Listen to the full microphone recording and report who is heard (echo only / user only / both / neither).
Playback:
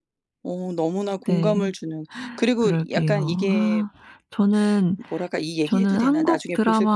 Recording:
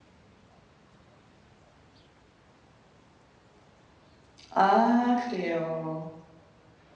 user only